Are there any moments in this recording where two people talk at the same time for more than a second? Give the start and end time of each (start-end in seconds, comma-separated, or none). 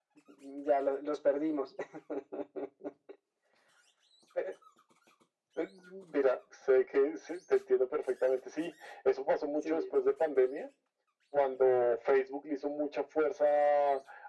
none